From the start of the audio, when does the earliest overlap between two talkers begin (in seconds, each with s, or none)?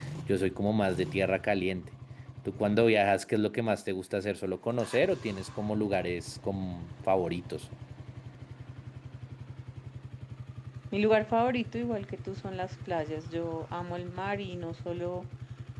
none